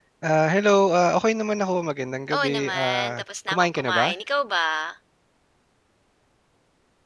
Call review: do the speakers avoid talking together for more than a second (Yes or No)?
No